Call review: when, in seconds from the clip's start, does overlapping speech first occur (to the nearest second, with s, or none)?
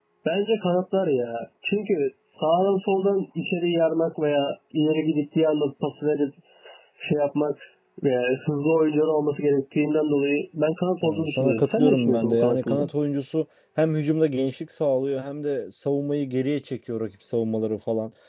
11 s